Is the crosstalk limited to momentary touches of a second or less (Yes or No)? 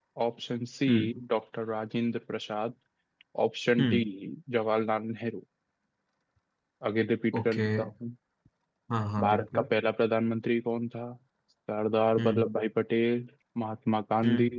Yes